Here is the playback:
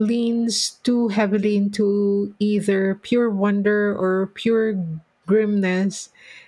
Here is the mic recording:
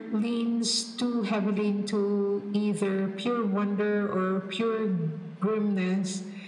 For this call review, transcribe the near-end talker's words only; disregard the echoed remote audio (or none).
none